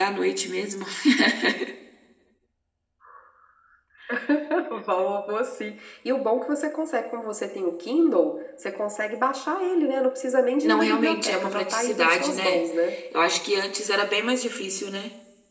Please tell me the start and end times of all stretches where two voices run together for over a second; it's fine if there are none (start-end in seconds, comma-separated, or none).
10.6-12.6